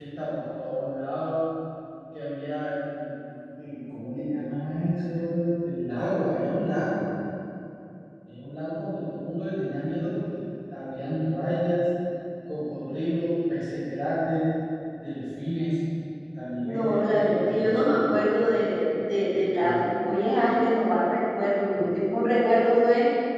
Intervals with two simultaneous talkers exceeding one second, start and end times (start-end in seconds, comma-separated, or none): 16.6-18.1